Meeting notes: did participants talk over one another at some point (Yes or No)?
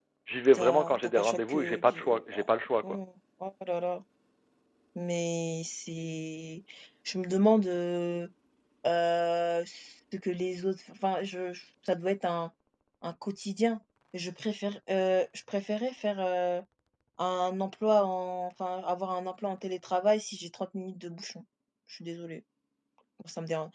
Yes